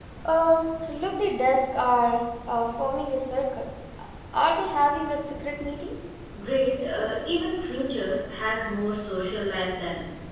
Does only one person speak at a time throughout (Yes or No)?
Yes